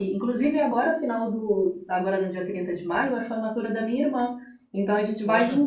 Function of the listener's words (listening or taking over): listening